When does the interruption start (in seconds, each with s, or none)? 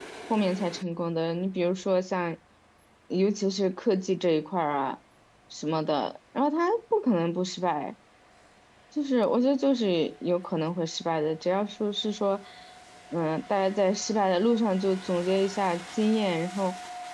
none